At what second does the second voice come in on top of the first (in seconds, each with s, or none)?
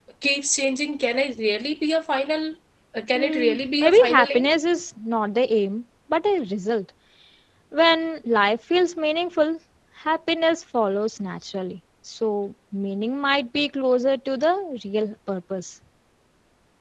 3.1 s